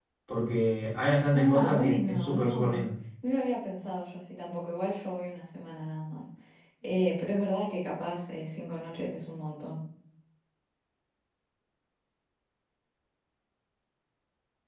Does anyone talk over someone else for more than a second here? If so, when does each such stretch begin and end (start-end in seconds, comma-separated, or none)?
1.3-2.8